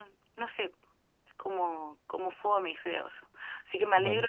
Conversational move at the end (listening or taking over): listening